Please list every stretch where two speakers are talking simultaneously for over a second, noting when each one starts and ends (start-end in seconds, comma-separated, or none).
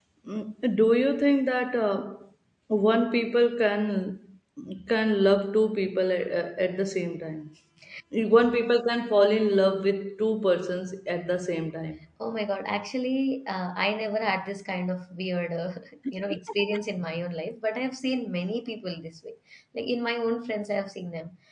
none